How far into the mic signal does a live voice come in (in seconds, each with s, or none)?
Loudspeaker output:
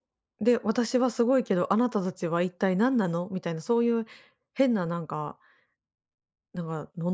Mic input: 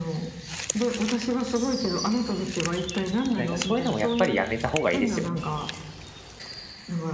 3.4 s